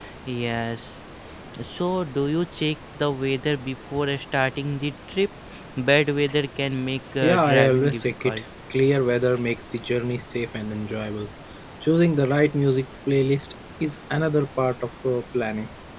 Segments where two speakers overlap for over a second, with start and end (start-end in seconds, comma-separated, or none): 7.2-8.4